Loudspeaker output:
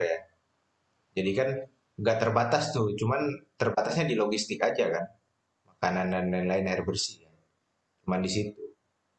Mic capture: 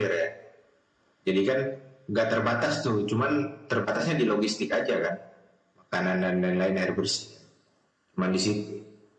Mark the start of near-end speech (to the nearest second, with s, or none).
none